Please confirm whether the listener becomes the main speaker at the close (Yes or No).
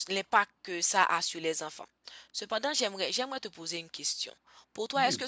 No